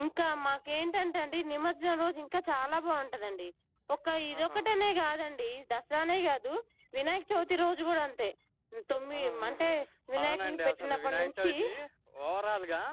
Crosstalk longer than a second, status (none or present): present